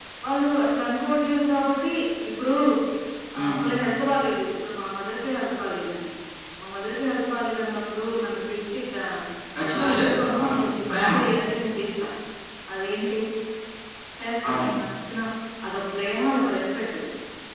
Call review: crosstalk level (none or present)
present